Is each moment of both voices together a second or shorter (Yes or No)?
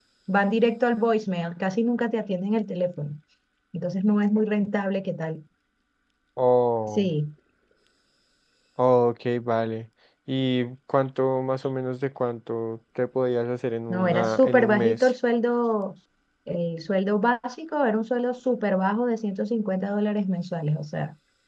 No